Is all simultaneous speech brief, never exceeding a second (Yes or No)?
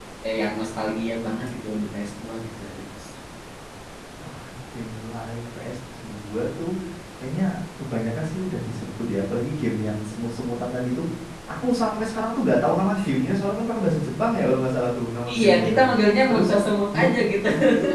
Yes